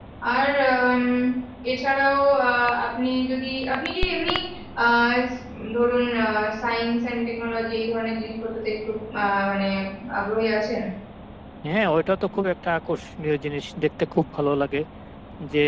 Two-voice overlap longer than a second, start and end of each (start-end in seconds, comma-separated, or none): none